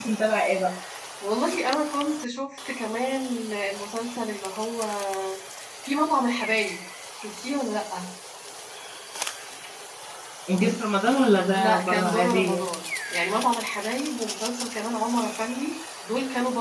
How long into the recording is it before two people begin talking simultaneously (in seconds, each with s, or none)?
11.4 s